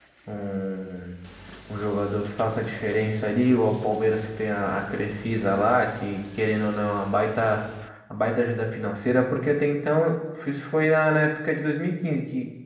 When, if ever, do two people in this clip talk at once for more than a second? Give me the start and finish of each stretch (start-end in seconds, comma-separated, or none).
none